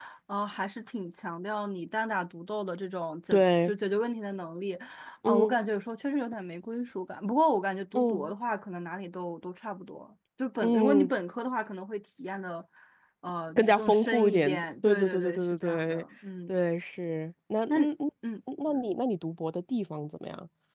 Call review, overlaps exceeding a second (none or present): present